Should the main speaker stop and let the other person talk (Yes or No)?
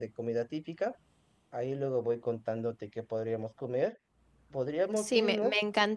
Yes